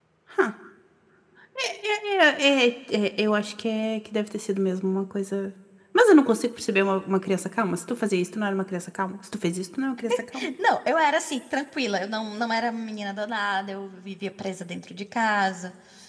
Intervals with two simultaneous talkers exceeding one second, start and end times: none

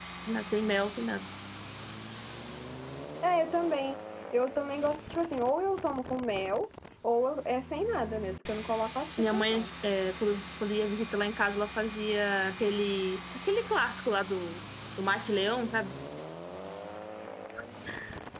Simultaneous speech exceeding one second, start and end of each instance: none

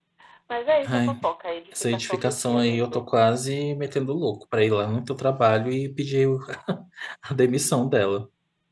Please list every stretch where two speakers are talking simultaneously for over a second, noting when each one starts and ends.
1.7-3.0

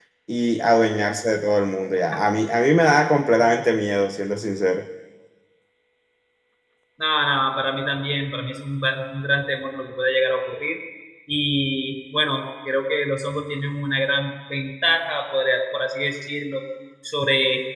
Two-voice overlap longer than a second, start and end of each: none

